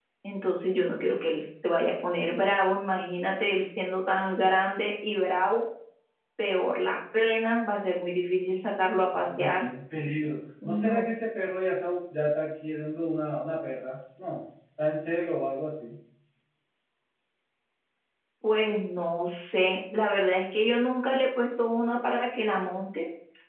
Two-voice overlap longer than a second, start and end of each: none

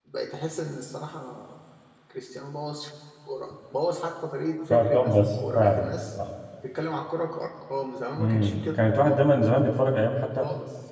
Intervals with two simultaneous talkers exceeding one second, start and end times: 4.7-5.9

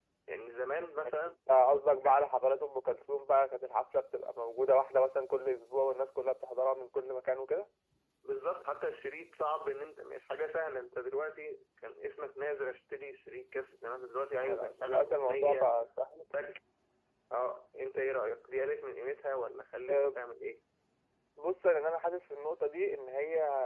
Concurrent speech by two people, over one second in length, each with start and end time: 14.4-15.7

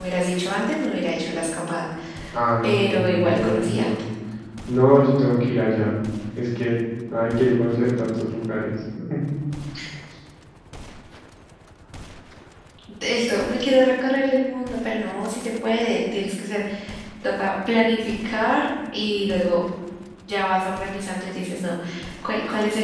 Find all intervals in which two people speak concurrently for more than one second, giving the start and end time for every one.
2.6-3.9

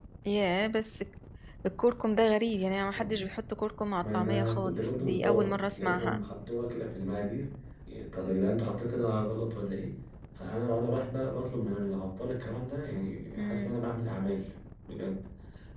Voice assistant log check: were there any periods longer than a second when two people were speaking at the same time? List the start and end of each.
4.0-6.2

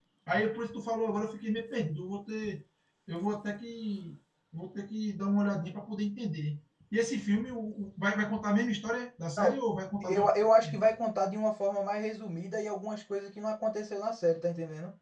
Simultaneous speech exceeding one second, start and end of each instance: none

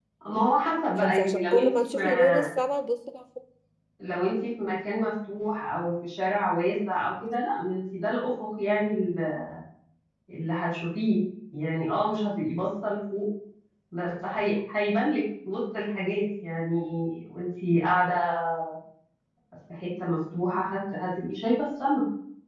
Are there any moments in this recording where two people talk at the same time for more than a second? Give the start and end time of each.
1.0-2.4

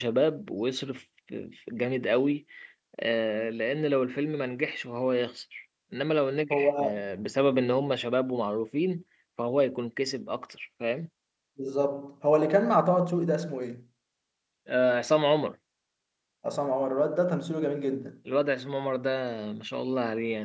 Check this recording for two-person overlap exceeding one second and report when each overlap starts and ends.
none

